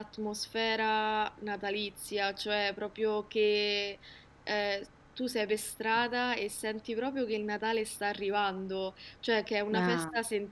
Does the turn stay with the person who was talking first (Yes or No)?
Yes